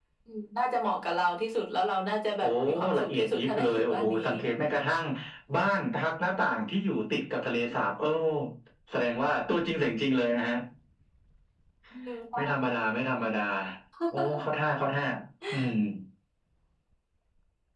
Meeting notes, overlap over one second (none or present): present